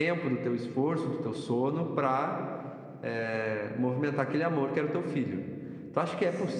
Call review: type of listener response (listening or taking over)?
listening